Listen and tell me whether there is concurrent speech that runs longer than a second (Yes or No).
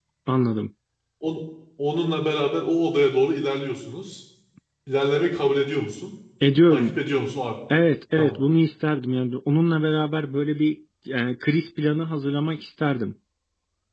No